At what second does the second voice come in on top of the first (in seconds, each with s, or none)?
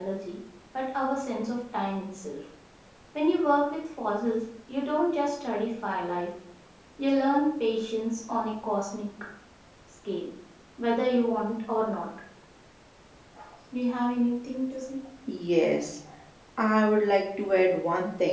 none